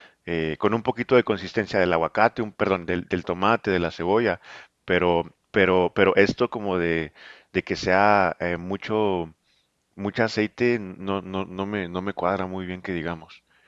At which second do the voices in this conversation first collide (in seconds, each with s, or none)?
none